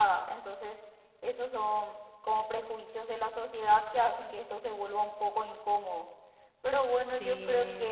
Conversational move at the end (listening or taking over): listening